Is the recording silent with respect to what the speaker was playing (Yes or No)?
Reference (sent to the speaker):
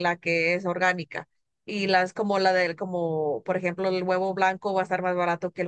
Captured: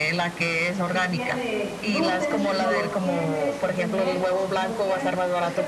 No